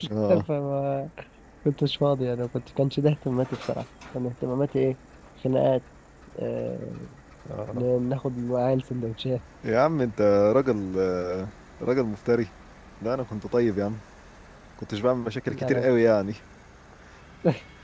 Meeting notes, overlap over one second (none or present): none